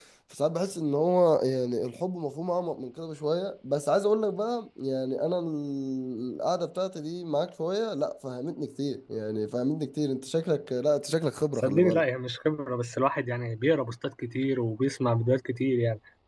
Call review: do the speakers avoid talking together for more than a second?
Yes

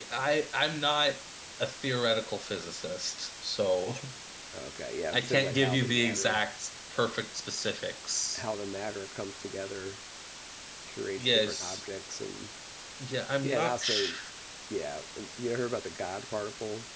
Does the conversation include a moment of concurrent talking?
Yes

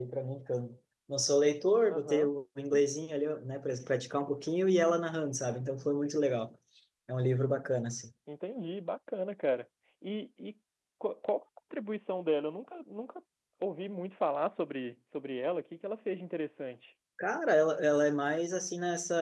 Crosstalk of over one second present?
No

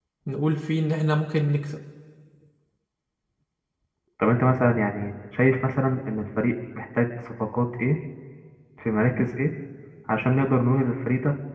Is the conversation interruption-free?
Yes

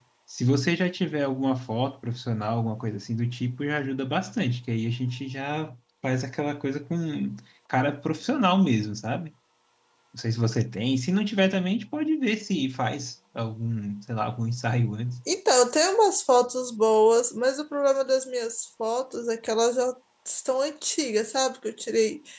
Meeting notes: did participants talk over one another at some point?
No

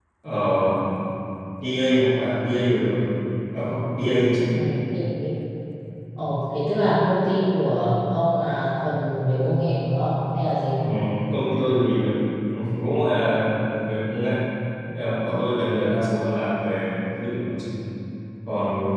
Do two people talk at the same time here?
No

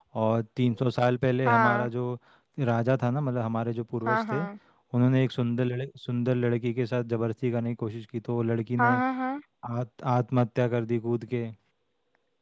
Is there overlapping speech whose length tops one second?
No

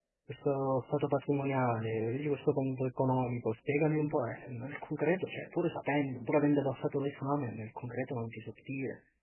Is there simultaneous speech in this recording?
No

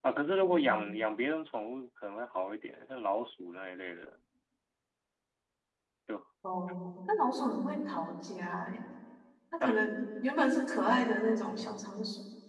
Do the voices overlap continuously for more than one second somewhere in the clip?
No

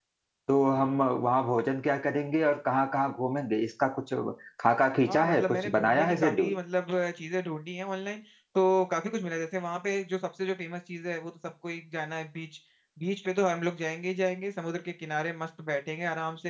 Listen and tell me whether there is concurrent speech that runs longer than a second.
Yes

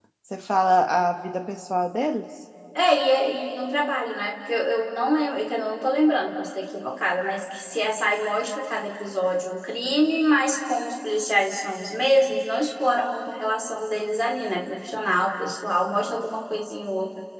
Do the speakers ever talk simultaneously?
No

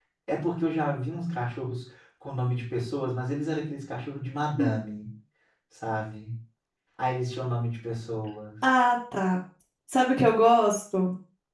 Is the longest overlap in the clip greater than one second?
No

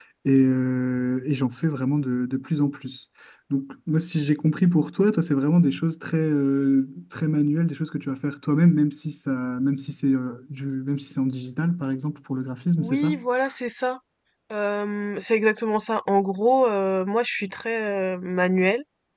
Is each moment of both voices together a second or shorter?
Yes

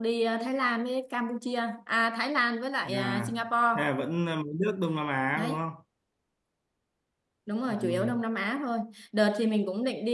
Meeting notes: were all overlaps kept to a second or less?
Yes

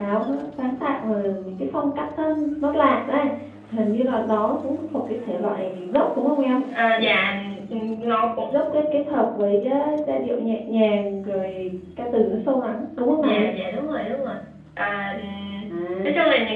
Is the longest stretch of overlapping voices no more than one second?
Yes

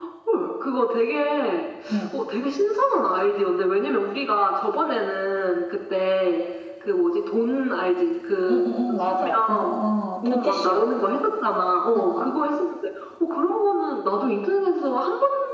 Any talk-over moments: Yes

